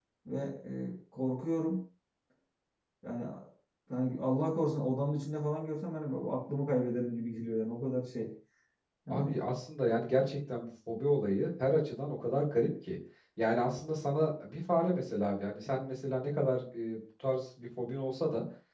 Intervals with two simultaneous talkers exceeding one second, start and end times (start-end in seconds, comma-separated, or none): none